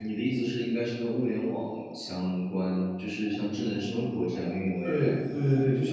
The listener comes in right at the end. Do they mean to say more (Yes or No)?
Yes